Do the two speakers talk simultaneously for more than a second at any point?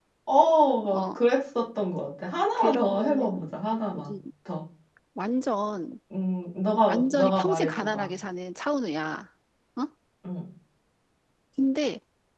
Yes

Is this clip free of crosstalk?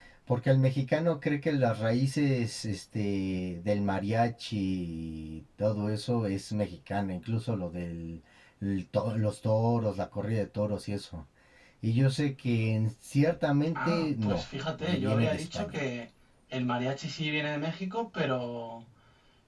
No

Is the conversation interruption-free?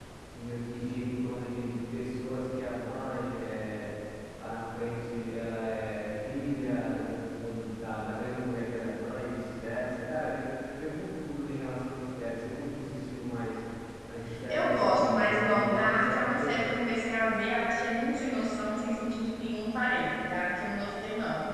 No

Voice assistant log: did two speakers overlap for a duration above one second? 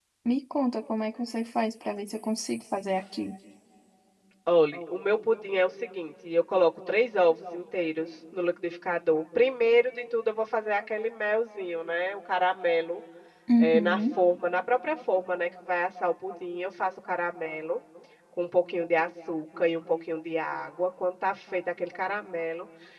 No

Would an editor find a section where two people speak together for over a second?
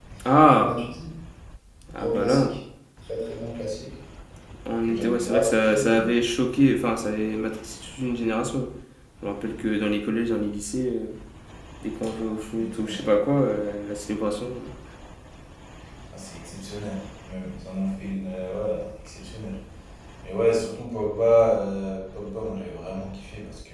Yes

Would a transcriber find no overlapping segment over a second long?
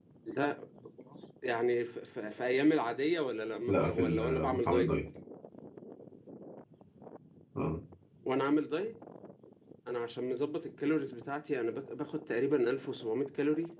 No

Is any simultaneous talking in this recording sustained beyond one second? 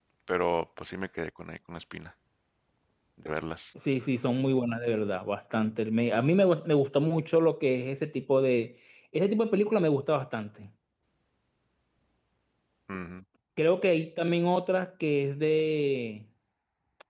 No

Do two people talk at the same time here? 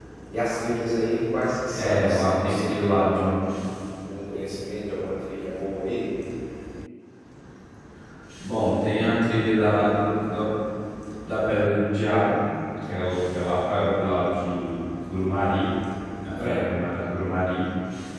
Yes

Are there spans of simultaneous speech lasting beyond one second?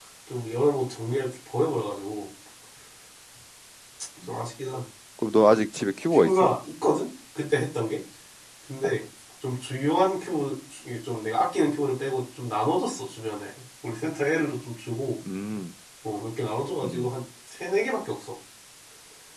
No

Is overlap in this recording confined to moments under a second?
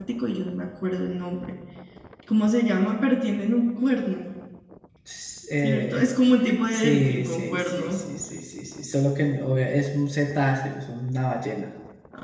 No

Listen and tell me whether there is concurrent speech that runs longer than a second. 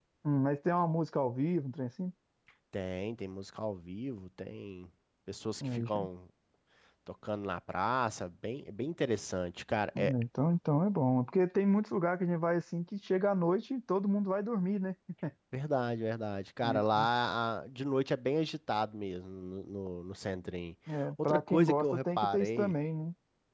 Yes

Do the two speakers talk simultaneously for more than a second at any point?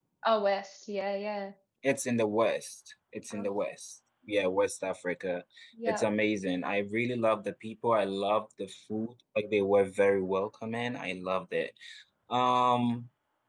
No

